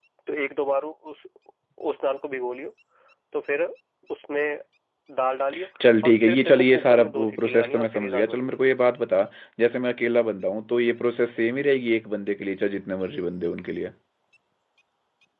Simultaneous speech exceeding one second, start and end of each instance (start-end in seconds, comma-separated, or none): 6.0-8.6